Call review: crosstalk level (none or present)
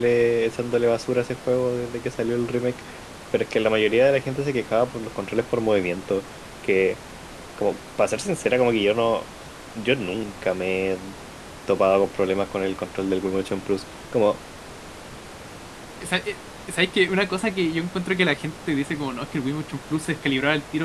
none